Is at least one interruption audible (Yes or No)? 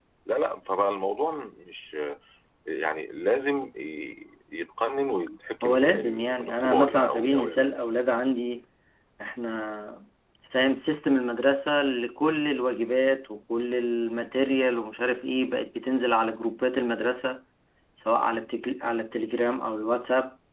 Yes